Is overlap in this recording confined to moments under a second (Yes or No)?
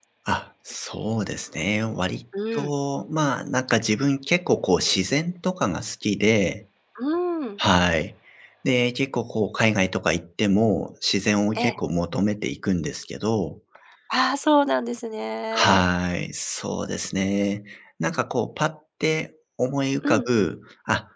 Yes